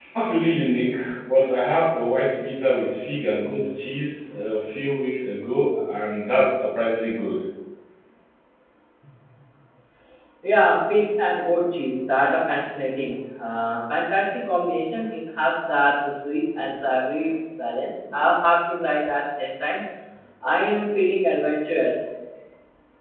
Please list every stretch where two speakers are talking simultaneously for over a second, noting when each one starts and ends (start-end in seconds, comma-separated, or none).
none